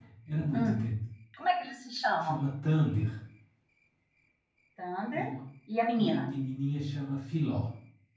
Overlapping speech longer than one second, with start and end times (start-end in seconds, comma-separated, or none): none